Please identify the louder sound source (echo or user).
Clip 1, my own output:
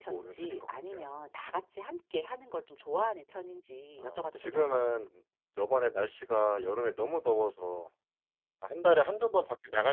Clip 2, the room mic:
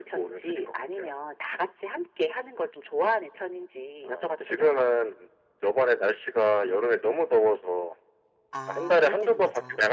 echo